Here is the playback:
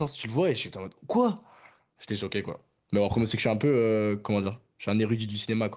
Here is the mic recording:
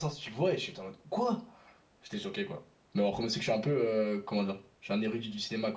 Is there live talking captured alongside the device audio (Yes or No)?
No